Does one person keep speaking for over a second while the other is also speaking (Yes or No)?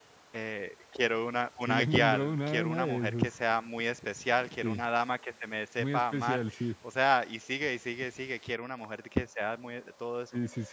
Yes